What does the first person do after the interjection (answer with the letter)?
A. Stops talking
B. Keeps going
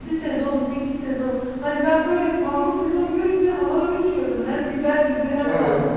A